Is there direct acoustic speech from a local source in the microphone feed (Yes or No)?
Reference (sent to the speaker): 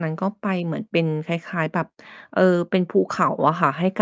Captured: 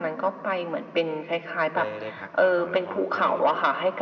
Yes